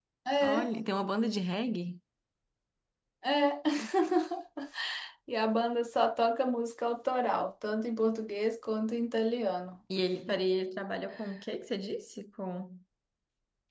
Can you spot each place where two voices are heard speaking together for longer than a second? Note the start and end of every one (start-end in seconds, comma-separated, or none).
none